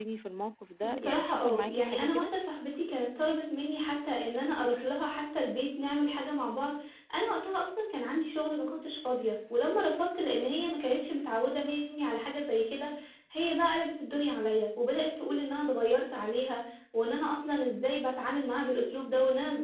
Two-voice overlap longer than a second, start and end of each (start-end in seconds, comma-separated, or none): 0.8-2.3